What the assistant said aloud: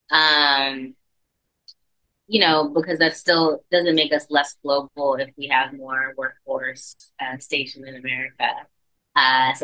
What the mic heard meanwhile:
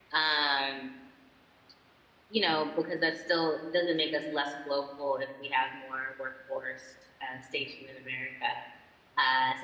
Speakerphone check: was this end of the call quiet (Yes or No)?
Yes